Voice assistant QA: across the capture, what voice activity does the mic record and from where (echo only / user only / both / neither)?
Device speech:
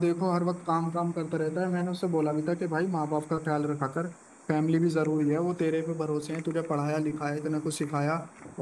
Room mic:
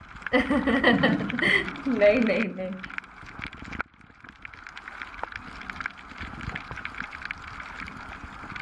user only